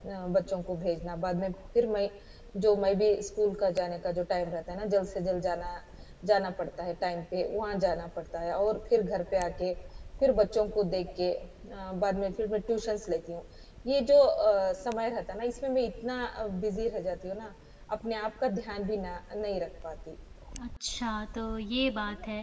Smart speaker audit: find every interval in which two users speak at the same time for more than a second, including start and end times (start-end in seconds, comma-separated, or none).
none